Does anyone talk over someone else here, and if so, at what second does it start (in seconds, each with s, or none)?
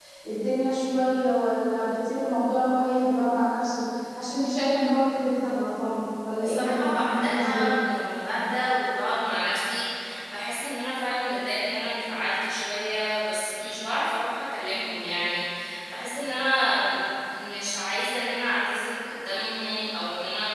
6.4 s